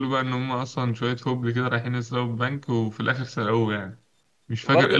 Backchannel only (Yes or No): No